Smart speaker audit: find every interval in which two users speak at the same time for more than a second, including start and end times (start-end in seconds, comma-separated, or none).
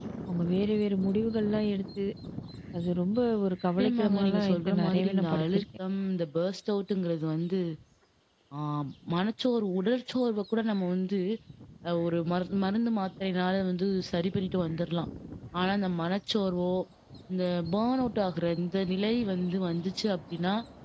3.8-5.6